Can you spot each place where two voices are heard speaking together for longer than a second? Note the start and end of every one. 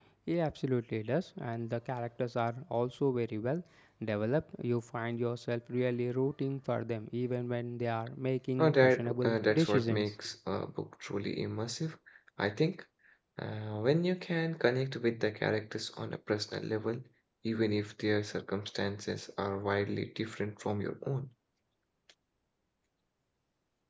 8.6-10.2

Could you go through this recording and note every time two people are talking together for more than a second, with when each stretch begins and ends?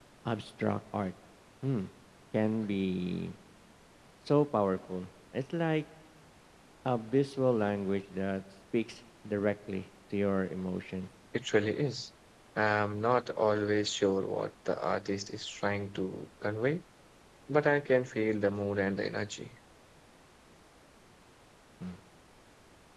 none

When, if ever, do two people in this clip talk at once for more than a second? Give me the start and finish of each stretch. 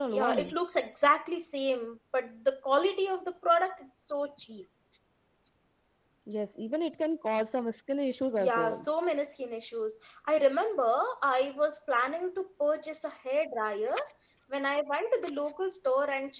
none

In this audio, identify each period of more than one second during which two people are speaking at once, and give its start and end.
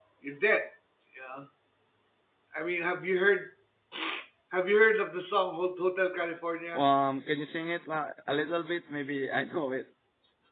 none

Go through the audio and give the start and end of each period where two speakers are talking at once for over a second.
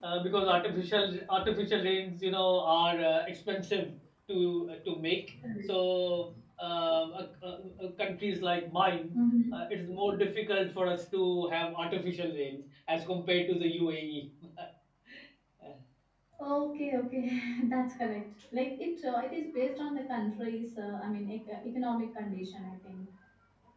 none

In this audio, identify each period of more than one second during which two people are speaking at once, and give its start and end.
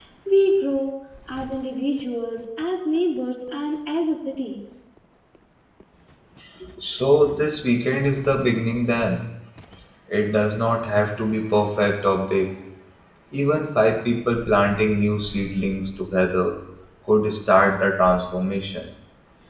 none

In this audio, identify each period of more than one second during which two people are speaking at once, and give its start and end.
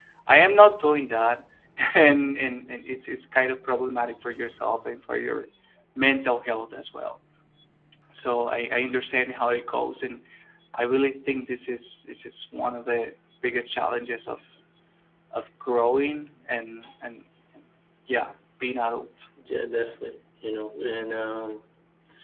none

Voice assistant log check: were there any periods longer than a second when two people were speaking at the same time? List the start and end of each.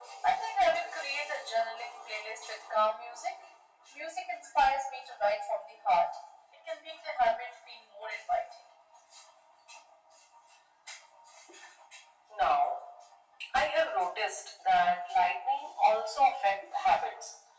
none

